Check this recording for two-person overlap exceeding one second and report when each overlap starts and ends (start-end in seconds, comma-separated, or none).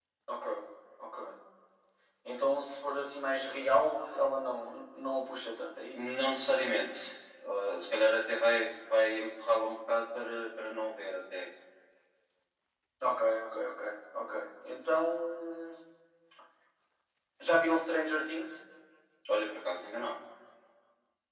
none